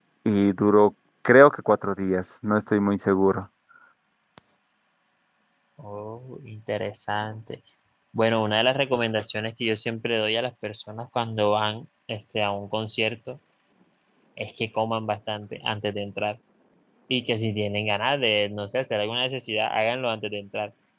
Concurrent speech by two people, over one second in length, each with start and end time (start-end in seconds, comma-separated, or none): none